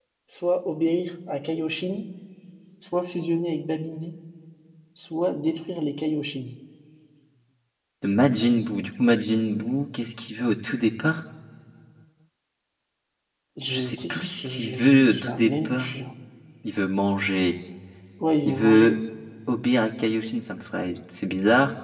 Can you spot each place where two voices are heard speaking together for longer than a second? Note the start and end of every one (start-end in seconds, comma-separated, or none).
13.7-15.9